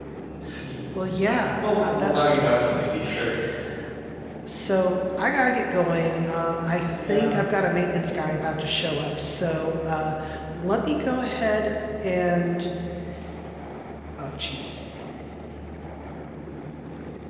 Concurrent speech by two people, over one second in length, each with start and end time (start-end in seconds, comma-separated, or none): 1.6-3.1